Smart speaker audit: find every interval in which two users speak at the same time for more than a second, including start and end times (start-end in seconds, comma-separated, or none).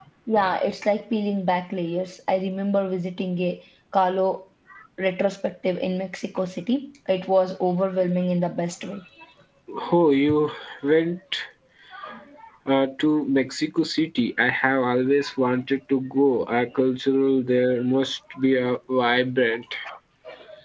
none